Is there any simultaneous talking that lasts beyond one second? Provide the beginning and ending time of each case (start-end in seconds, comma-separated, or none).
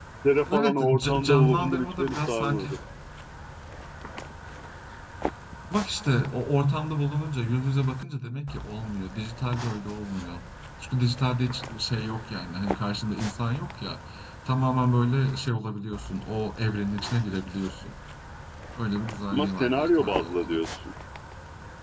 0.5-2.7, 19.3-20.6